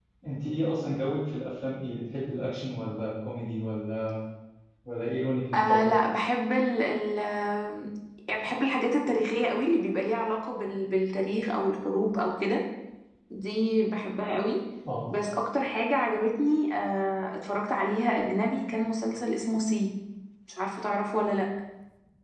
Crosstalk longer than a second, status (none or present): none